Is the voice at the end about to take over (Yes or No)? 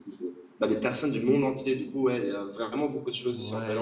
Yes